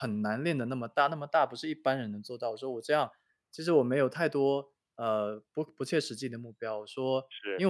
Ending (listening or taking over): listening